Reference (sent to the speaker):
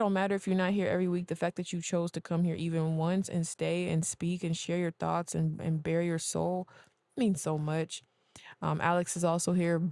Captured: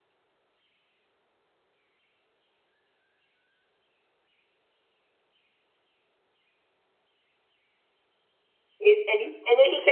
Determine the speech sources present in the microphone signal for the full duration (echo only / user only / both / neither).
user only